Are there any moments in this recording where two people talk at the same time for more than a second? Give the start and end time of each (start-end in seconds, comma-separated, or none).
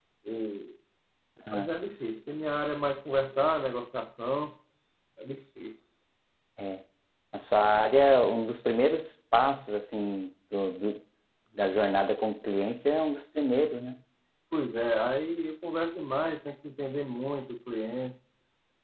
none